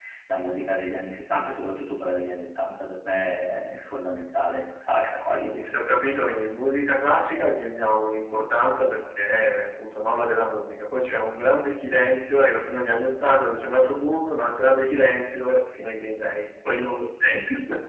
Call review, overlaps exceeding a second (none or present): none